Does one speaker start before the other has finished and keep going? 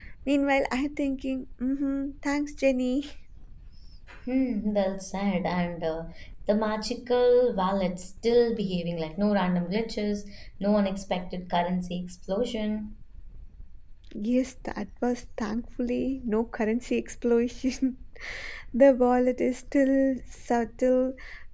No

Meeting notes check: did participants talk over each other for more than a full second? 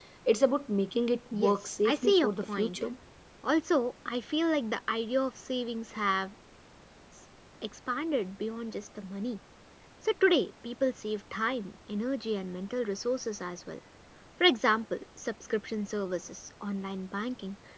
Yes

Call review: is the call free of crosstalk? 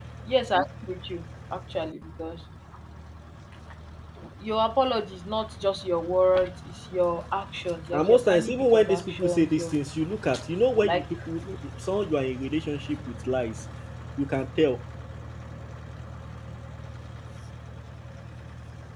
No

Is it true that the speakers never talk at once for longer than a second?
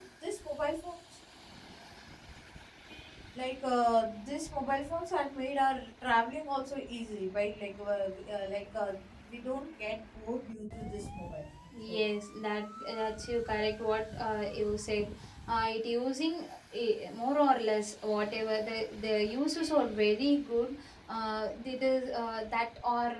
Yes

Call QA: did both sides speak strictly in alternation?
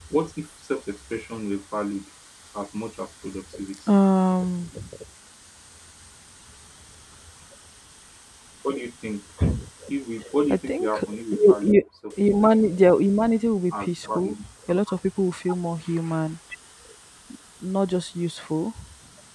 No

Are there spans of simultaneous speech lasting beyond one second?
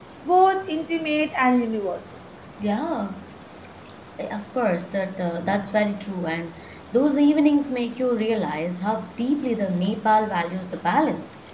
No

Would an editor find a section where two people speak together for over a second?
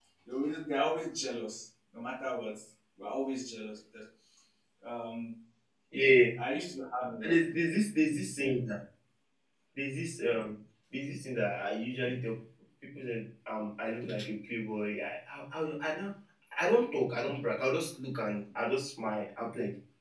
No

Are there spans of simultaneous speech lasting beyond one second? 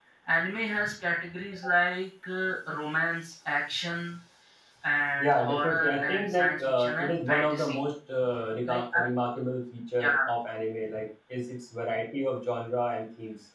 Yes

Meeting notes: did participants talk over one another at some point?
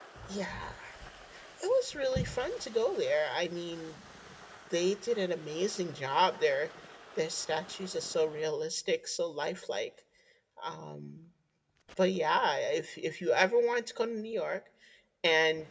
No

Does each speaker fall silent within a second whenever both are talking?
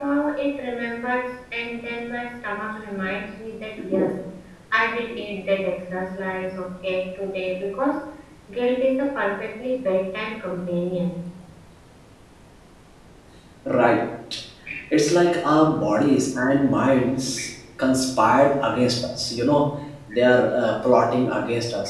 Yes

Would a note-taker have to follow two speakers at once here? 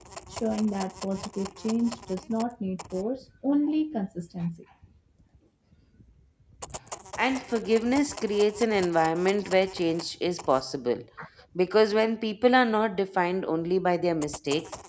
No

